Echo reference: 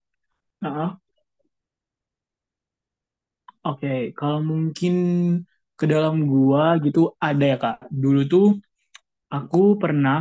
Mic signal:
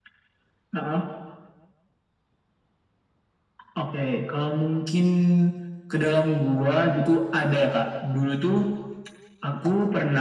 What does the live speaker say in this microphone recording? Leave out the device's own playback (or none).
none